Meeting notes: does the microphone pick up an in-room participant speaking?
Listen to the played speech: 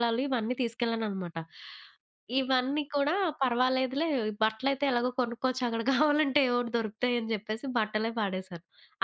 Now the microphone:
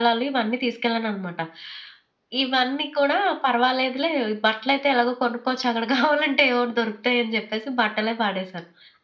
No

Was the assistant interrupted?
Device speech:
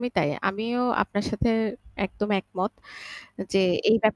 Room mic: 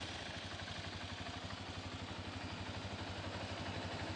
No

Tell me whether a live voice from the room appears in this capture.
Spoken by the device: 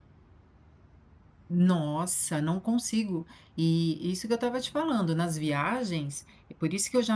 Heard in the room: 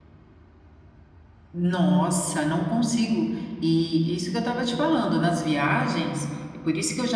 No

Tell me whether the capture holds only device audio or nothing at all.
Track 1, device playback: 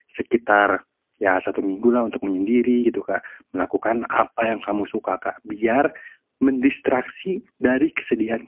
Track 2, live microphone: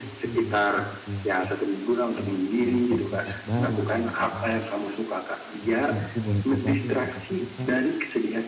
No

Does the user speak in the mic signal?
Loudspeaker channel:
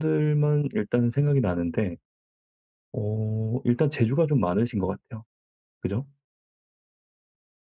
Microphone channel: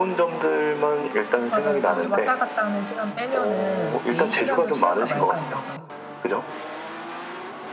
Yes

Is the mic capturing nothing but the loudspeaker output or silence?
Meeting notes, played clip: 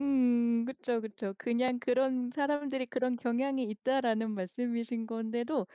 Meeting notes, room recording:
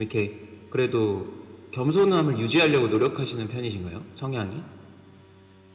No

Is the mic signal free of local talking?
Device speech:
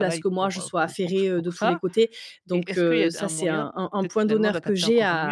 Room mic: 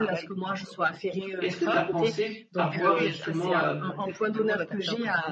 No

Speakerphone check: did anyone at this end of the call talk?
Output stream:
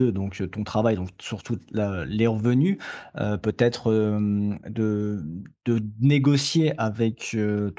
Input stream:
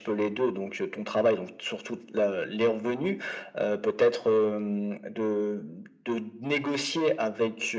No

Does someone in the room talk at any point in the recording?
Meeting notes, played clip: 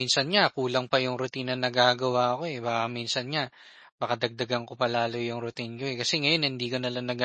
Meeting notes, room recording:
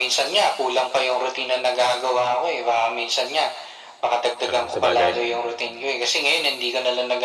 Yes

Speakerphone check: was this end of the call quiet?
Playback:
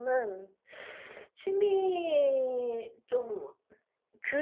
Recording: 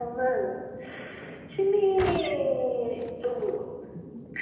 Yes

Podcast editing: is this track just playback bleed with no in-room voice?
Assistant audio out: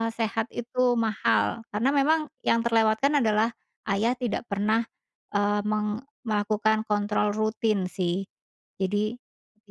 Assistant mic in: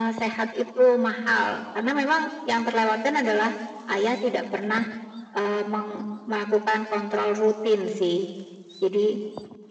Yes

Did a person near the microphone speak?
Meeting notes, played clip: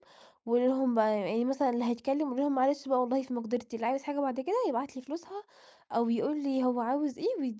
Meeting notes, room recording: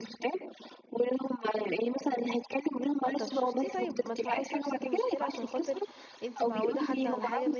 Yes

